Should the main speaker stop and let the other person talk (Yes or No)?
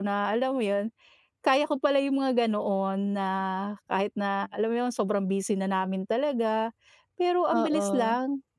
No